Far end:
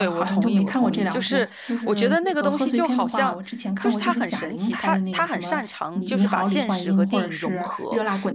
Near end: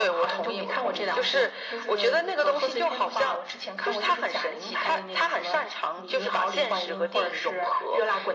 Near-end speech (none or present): none